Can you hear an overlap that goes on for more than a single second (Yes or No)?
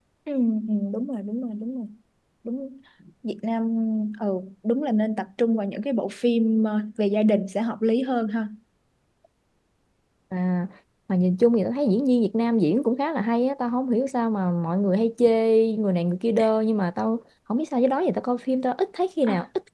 No